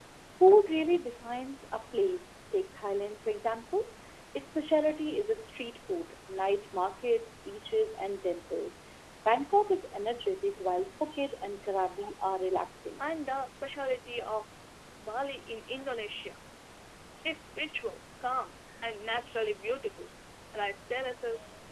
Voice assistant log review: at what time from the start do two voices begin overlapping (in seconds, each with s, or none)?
none